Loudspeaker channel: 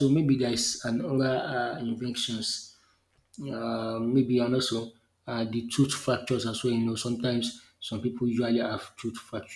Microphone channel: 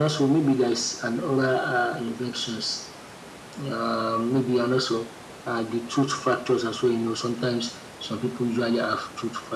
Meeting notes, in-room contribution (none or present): none